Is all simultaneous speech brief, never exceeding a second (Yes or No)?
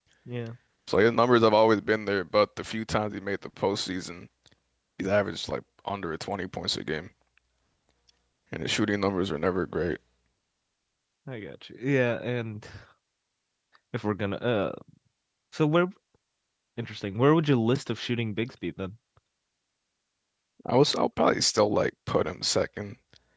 Yes